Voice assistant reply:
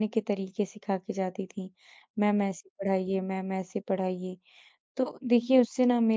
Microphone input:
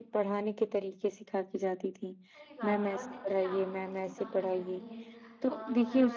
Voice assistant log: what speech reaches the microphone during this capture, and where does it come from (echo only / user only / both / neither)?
both